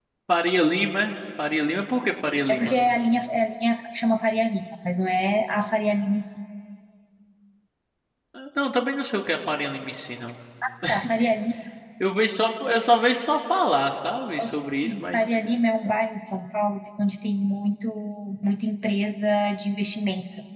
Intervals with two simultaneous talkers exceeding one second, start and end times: none

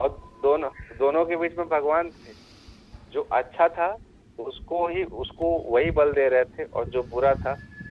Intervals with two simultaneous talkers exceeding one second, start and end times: none

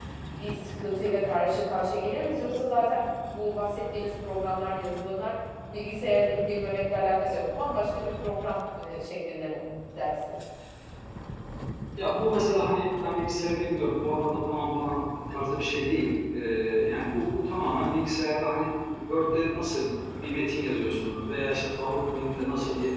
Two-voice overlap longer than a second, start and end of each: none

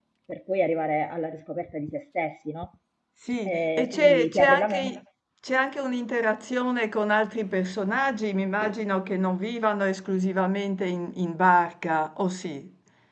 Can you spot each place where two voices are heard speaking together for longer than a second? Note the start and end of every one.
3.4-4.9

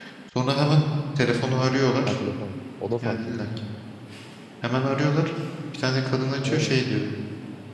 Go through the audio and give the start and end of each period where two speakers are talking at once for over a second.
none

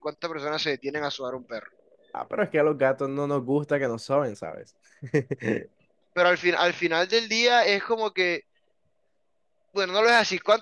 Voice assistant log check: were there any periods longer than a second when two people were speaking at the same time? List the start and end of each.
none

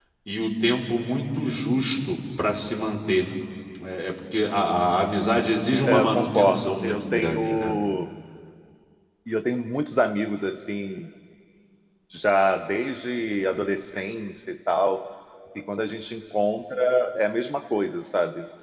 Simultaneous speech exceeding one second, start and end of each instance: 5.8-7.7

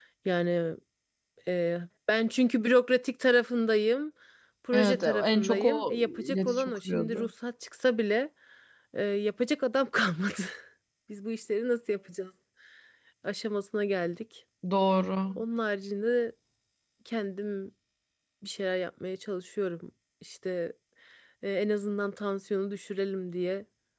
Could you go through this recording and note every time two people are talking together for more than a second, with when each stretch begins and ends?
4.7-7.3

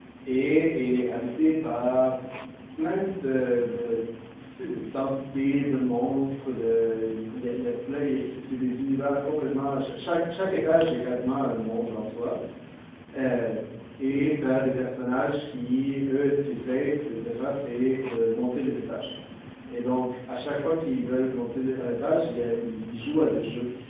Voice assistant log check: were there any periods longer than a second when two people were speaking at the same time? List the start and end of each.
none

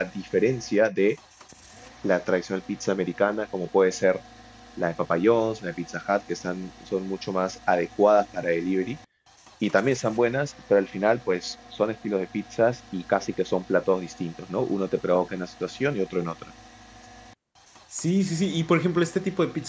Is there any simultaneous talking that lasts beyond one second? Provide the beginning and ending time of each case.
none

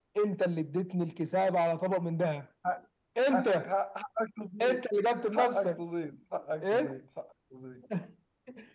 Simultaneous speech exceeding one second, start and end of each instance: none

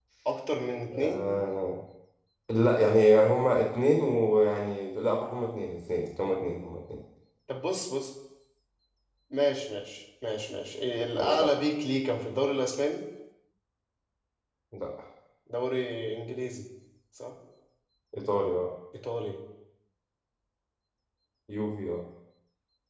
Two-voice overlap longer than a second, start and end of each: none

